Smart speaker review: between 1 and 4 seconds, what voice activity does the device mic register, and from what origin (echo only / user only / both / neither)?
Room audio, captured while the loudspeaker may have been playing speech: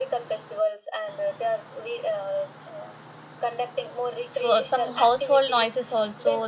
echo only